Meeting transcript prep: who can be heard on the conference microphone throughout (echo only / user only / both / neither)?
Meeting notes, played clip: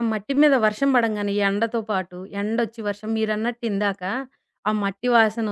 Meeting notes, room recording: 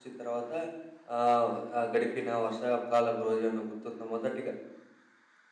user only